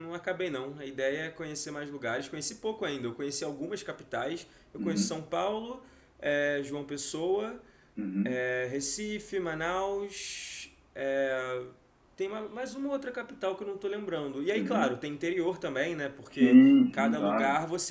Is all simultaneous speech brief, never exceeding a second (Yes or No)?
No